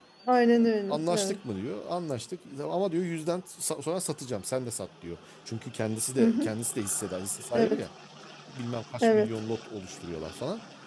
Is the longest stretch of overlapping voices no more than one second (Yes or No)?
Yes